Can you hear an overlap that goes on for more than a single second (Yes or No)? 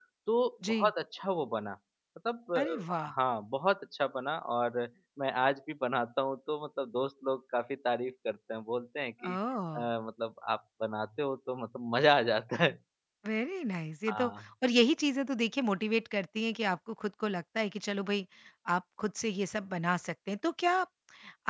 No